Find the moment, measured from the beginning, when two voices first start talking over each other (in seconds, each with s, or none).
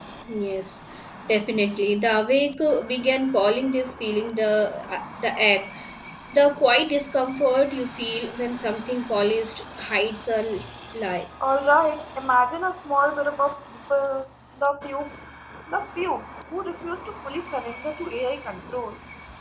none